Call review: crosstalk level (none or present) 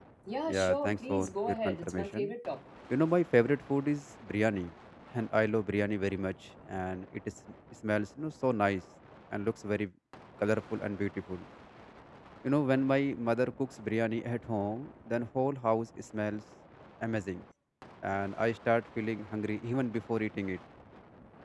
present